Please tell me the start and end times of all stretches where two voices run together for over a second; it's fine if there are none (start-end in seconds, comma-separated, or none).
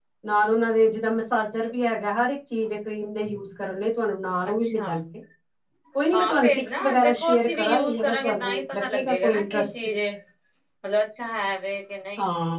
6.1-10.0